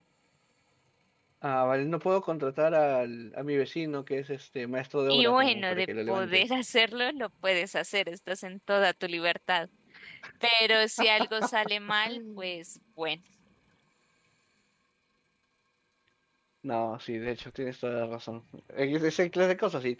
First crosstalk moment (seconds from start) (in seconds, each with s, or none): 5.1 s